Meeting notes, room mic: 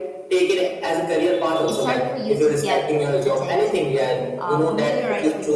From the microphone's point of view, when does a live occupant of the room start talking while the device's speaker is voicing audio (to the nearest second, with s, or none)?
2 s